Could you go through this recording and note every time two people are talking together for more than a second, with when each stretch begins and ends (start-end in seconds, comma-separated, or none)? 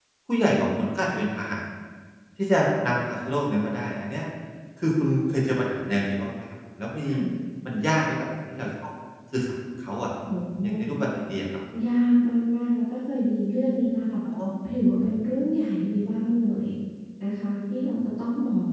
none